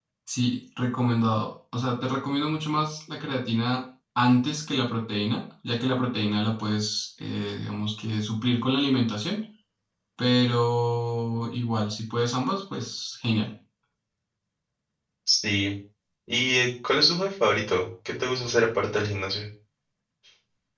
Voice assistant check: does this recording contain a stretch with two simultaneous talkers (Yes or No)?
No